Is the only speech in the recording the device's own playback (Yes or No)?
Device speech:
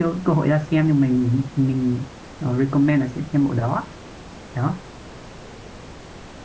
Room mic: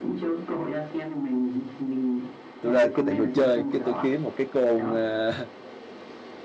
No